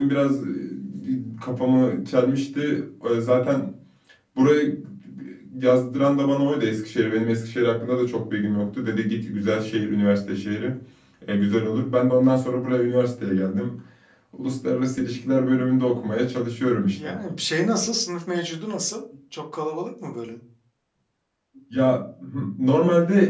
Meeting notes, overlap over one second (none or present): none